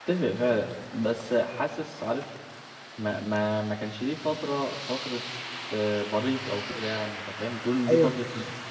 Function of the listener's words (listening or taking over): taking over